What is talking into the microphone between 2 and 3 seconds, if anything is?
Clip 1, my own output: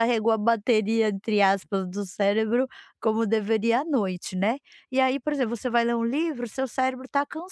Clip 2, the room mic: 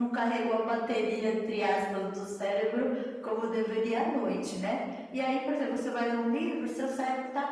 echo only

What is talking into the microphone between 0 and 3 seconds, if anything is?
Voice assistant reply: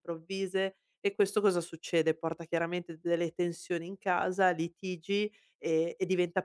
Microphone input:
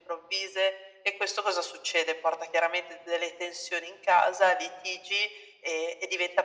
echo only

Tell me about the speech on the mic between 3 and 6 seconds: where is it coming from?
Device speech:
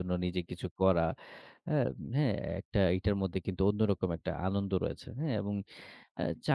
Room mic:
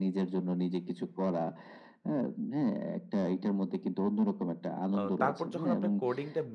both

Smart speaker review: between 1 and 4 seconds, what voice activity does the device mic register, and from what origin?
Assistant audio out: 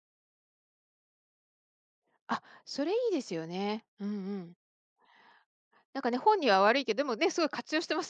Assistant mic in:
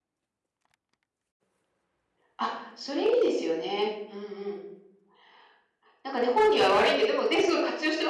echo only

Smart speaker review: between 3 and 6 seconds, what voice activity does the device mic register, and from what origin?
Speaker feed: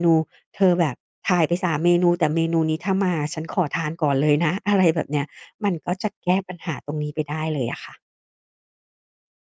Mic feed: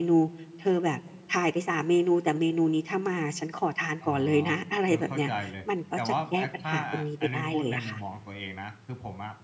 both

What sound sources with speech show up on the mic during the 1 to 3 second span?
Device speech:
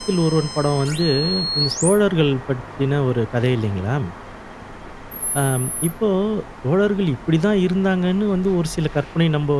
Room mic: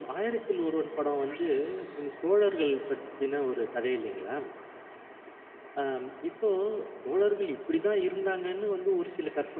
echo only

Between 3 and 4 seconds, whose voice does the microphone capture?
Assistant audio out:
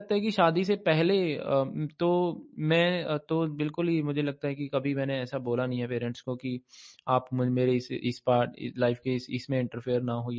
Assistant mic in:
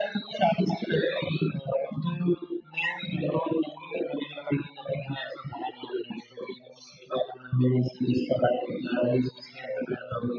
echo only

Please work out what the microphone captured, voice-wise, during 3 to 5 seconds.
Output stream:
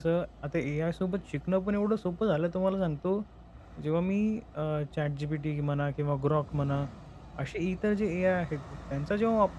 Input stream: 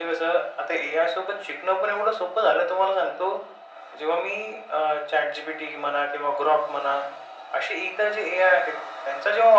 echo only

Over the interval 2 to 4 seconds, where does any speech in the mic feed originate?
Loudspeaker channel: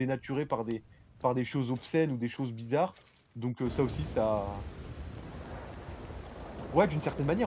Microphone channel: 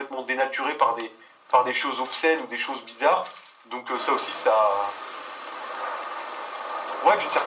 echo only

